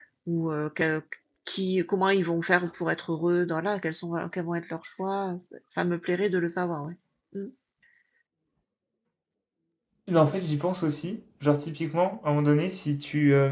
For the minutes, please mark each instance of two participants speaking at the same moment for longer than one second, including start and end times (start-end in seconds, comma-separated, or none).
none